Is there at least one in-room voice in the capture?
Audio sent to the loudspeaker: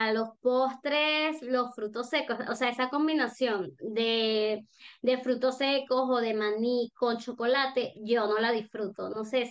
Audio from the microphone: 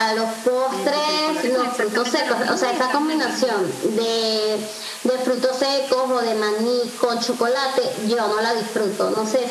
Yes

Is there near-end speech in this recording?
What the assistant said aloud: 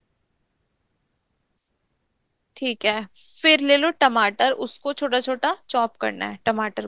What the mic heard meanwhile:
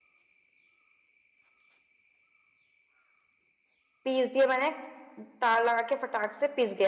Yes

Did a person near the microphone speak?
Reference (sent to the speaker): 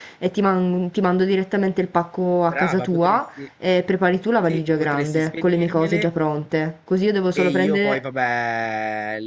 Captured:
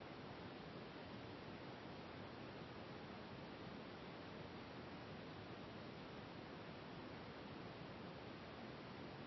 No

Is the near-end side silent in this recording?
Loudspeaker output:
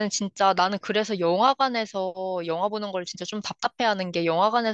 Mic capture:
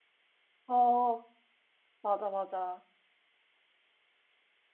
No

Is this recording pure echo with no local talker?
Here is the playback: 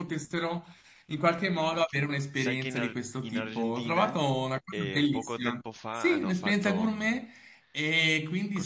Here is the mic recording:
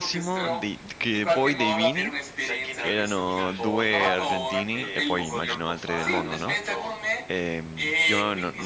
No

